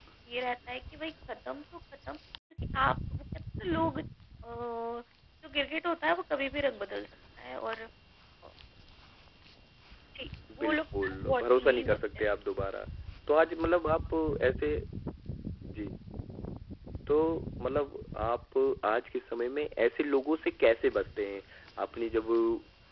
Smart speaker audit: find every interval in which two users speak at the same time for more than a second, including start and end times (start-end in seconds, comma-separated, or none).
10.6-12.2